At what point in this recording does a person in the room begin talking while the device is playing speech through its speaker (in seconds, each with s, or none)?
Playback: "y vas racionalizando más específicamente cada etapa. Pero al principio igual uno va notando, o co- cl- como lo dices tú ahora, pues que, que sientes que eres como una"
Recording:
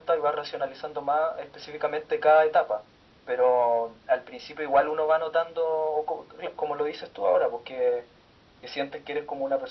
none